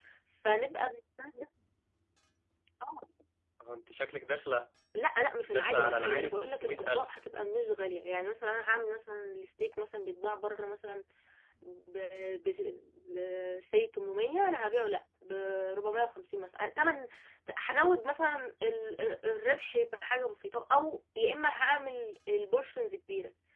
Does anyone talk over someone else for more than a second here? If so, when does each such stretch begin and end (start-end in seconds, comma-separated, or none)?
5.5-7.2